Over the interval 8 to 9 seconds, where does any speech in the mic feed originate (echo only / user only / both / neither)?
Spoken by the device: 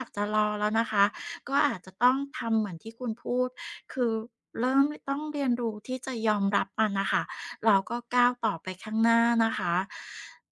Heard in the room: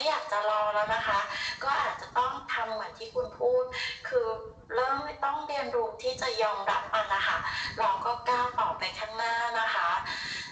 echo only